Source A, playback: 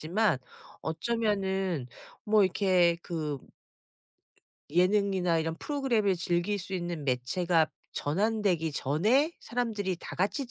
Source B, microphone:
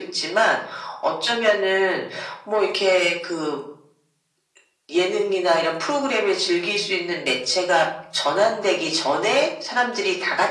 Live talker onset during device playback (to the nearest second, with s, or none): none